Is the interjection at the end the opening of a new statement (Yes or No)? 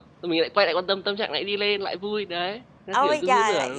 Yes